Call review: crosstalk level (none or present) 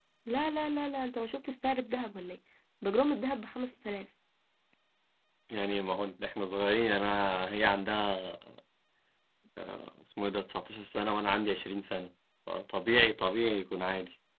none